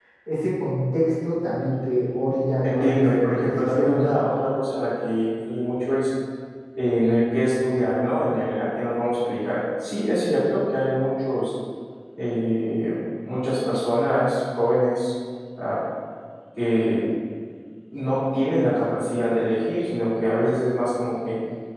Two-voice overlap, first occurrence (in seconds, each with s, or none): 2.6 s